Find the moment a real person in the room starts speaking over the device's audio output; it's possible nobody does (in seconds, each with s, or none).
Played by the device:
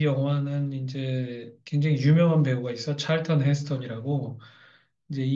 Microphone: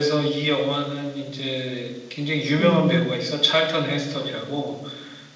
2.6 s